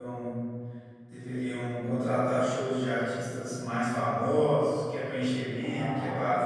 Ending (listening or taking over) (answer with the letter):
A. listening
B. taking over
A